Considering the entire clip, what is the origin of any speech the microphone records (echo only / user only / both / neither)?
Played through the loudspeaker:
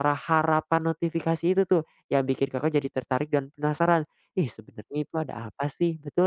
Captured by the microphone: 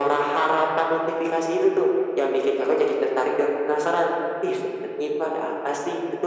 echo only